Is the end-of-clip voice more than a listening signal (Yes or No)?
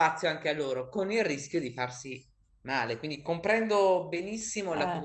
No